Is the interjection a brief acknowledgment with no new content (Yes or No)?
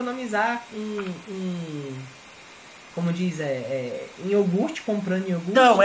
No